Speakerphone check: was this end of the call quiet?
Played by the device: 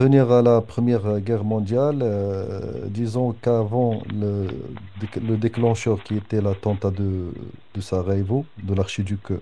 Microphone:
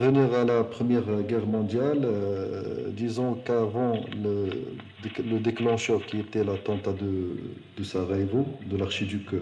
Yes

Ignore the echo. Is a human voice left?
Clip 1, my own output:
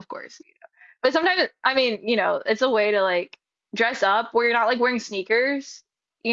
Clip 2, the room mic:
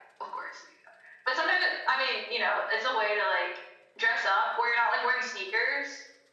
No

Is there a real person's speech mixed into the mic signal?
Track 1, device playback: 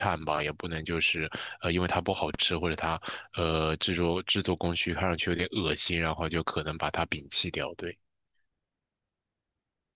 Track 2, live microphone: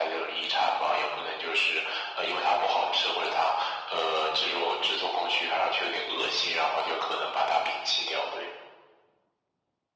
No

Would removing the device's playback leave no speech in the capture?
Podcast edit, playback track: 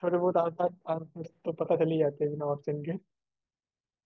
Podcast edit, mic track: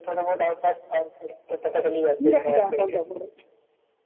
No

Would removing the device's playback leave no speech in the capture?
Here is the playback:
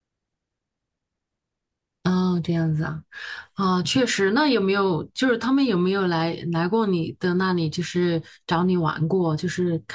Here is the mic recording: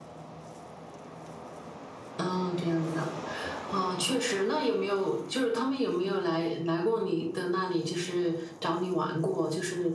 Yes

